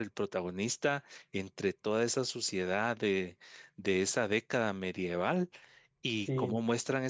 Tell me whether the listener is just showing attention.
Yes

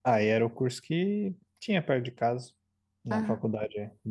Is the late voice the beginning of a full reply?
No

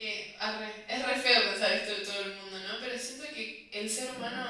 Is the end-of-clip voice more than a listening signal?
No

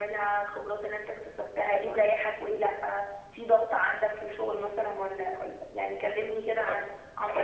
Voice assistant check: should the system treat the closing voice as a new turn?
Yes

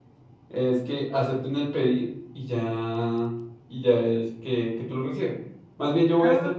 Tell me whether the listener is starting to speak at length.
No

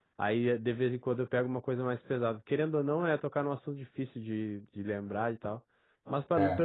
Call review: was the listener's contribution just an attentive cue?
Yes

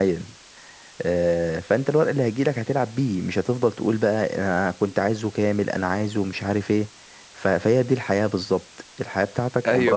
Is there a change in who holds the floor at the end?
Yes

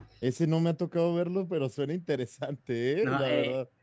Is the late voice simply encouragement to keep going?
No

